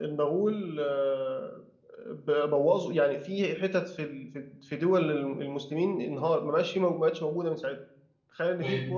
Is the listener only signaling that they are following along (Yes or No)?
Yes